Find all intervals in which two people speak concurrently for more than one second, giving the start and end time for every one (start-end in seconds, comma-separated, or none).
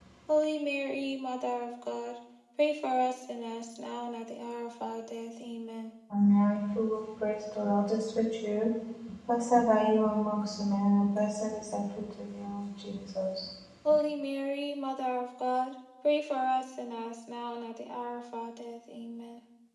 none